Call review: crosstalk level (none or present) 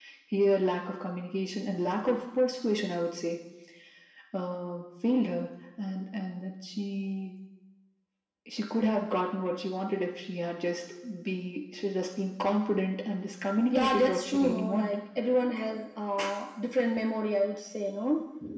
present